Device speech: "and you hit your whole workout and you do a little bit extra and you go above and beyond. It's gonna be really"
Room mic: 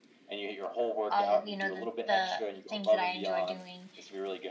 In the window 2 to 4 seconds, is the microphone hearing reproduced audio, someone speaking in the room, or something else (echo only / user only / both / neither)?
both